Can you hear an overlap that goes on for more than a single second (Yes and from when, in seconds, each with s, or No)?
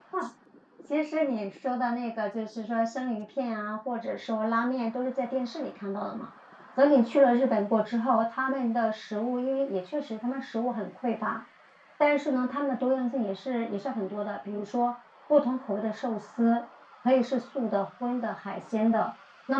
No